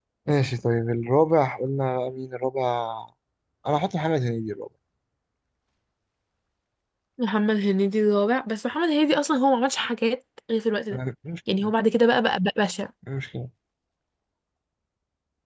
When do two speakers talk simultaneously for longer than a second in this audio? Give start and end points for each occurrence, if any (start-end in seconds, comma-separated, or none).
none